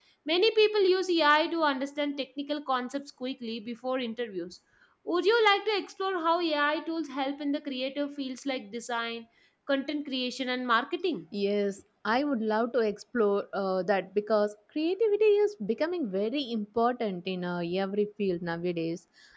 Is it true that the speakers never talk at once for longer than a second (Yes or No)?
Yes